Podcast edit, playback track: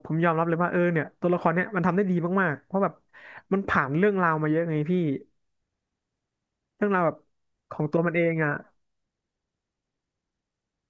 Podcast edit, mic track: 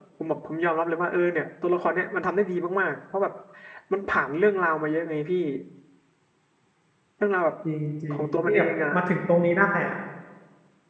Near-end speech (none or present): present